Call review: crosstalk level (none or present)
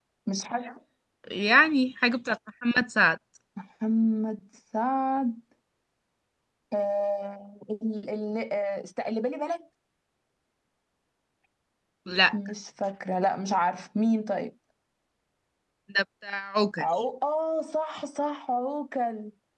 none